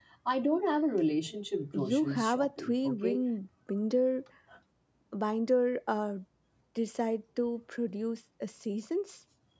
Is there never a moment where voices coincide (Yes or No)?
No